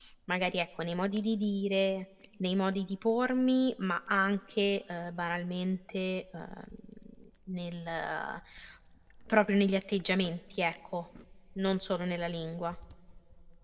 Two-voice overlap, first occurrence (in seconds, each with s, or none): none